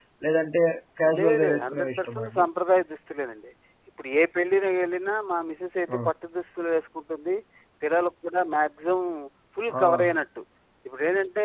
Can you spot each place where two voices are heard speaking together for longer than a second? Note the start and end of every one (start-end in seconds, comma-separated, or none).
1.2-2.5